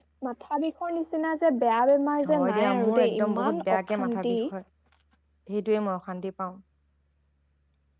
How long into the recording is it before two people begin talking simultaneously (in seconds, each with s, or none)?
2.2 s